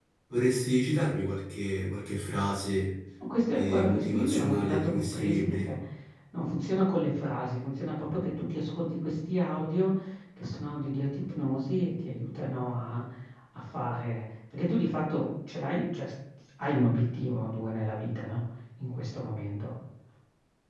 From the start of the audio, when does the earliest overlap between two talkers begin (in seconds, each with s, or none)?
3.5 s